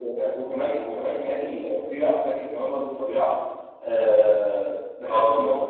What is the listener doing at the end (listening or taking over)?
listening